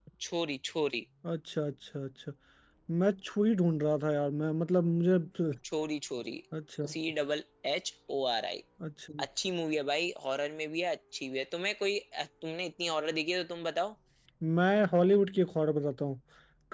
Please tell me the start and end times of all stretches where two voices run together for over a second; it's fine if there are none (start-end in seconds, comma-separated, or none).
none